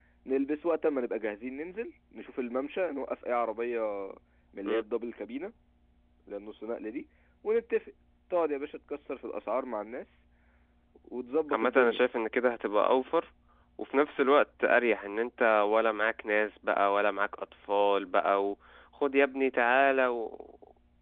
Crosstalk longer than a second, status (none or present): none